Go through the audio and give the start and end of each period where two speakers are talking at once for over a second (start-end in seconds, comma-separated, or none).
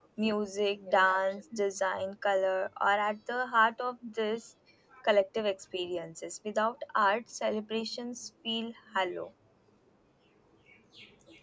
none